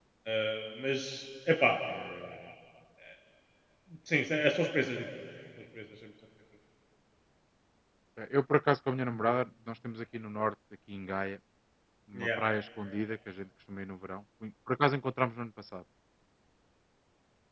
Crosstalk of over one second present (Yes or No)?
No